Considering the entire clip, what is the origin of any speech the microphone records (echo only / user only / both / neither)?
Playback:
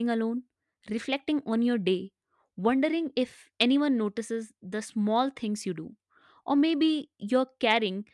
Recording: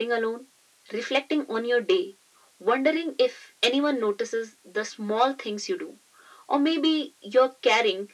echo only